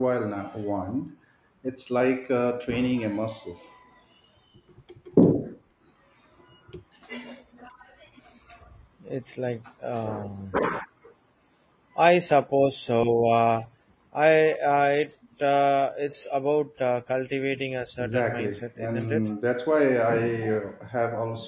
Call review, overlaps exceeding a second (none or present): present